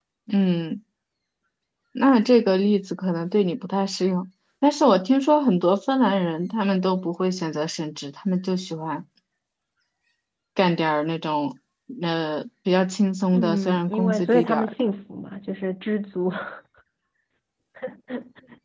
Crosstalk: present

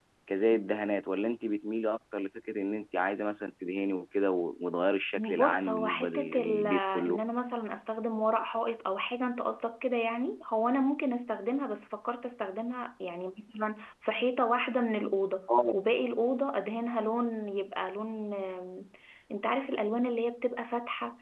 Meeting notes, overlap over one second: present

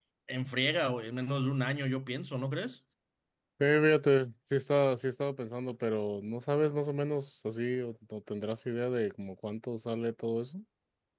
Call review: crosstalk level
none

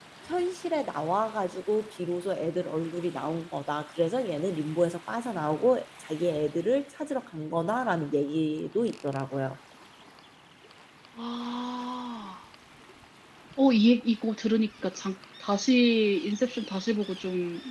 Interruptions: none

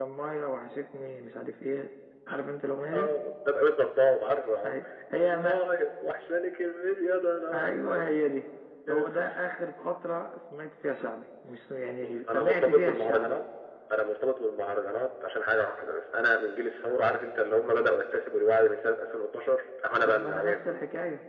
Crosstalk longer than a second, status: present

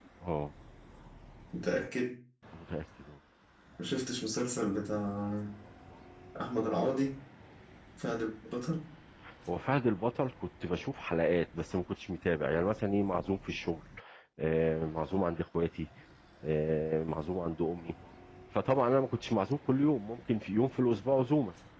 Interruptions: none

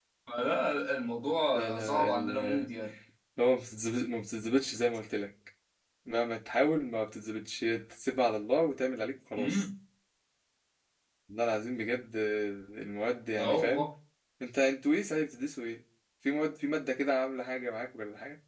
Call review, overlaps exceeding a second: present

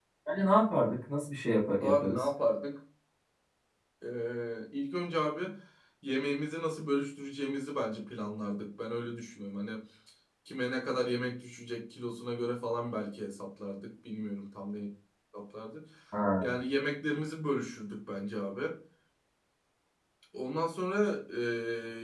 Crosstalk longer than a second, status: none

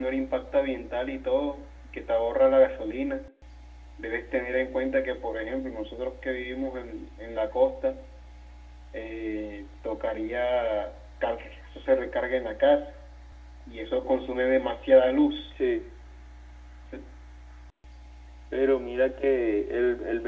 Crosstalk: none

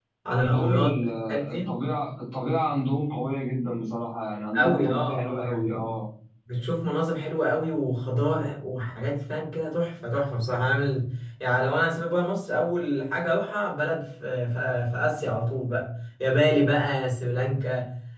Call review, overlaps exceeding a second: present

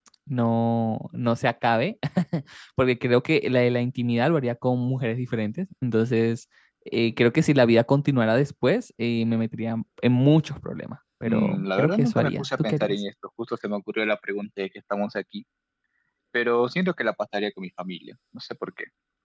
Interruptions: present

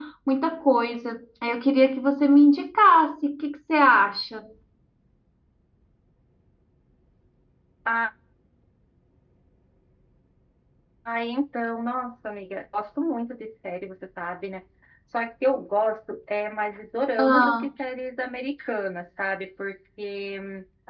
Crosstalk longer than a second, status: none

